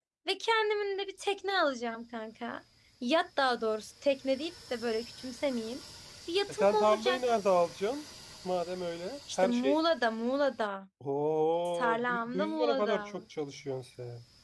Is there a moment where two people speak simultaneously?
Yes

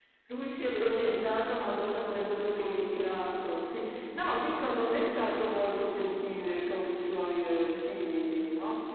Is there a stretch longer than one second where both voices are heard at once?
Yes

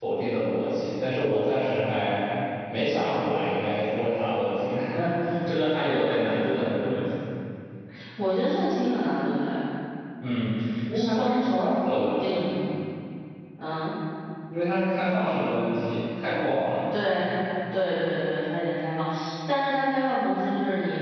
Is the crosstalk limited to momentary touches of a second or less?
No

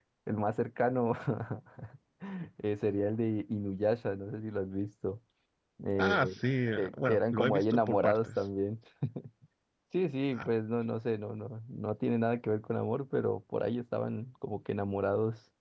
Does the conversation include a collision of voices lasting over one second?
Yes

